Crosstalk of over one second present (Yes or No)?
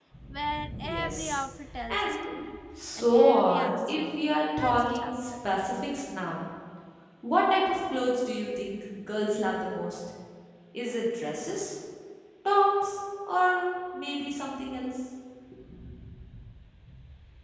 Yes